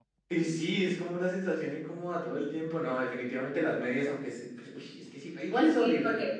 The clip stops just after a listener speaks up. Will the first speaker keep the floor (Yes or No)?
No